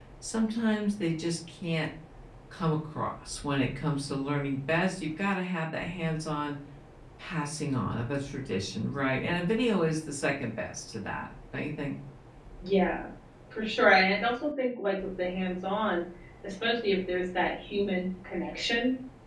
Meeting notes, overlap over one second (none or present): none